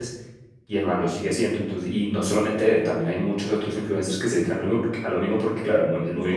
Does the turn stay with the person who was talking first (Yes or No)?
No